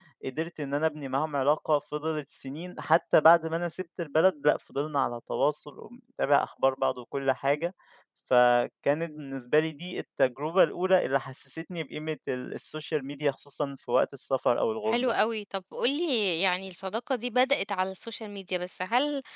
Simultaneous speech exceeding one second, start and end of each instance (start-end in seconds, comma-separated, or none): none